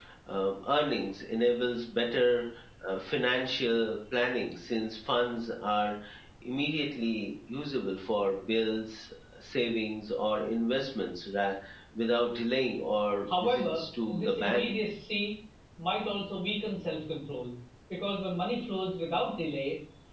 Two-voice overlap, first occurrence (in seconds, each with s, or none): 13.3 s